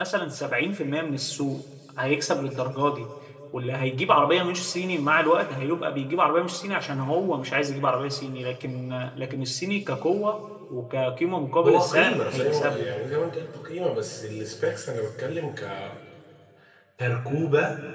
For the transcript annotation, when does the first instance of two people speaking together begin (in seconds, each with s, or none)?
11.6 s